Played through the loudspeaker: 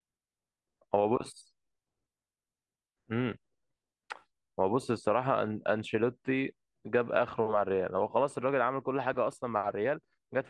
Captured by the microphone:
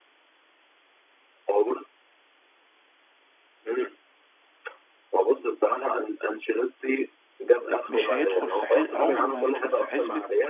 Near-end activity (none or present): present